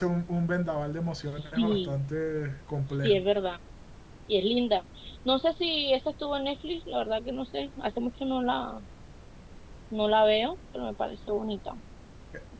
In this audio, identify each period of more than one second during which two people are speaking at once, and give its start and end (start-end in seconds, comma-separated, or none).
none